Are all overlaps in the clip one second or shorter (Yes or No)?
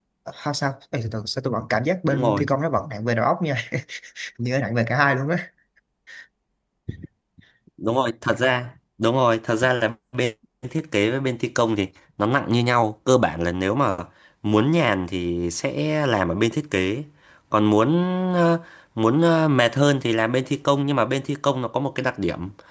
Yes